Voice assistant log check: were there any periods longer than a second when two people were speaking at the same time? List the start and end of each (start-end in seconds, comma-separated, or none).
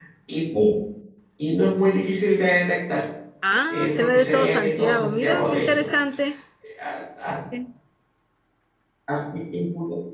3.7-5.9